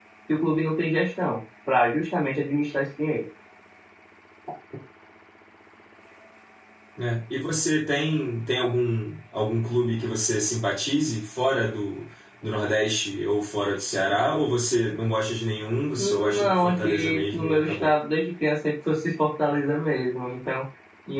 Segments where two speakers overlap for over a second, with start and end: 16.0-17.9

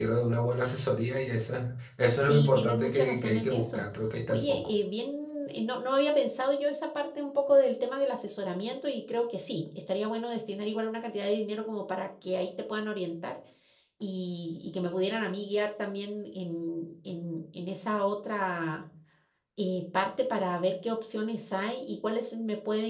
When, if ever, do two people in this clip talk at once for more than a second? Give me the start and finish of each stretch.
2.2-3.9

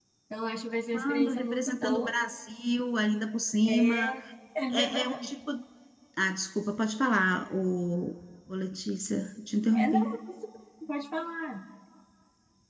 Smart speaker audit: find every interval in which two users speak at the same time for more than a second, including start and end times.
0.9-2.1

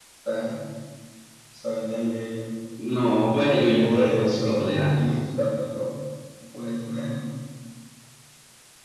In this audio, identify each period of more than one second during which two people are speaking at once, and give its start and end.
3.8-5.2

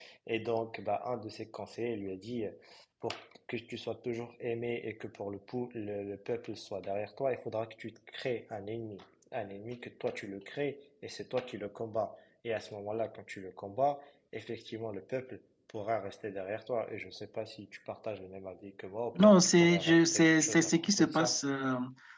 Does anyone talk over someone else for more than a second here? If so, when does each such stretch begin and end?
19.2-21.4

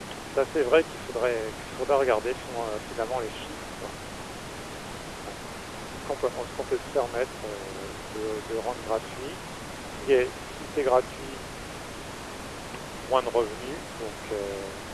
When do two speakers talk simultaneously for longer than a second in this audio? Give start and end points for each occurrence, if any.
none

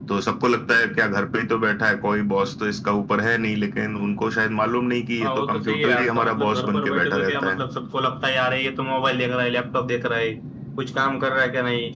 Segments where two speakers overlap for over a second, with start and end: 5.2-7.5

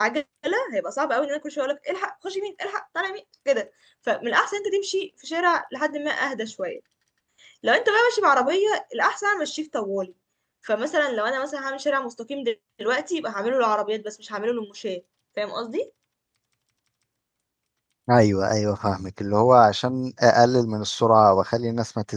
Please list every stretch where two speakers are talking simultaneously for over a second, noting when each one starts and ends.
none

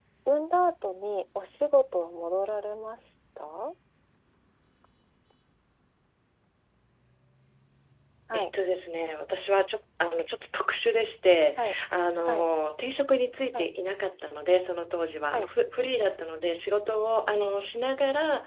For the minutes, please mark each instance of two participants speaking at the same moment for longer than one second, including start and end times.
none

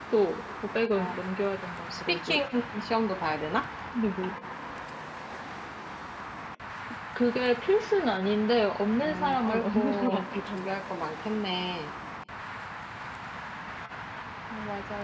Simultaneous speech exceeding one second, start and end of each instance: 9.0-10.6

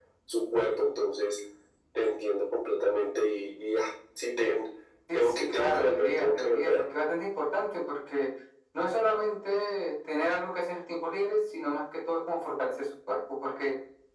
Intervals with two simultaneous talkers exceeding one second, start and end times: 5.1-6.8

